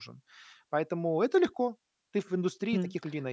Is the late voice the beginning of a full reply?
Yes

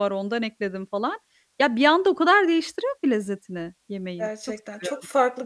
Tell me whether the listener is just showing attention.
No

